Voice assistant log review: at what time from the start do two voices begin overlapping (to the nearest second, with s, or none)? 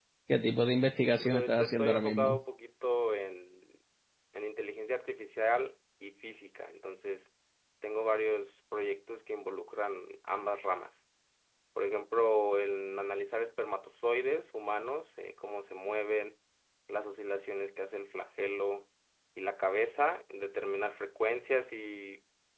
1 s